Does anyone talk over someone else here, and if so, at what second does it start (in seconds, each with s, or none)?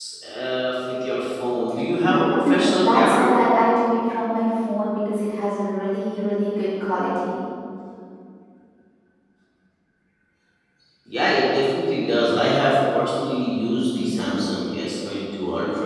2.0 s